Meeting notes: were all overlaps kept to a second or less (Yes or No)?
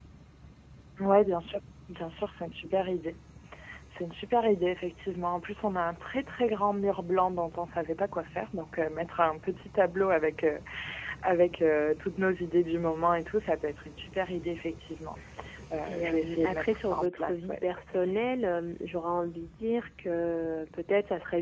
No